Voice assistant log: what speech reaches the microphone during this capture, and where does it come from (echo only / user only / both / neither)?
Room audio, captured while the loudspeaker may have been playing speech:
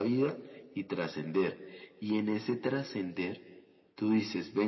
echo only